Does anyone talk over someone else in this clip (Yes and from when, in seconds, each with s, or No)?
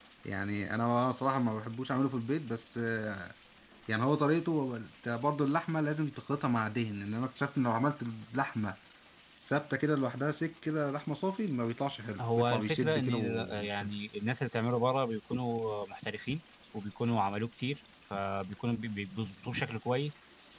Yes, from 12.2 s